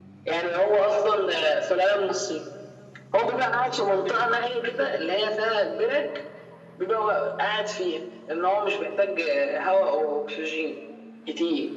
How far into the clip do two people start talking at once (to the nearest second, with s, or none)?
4 s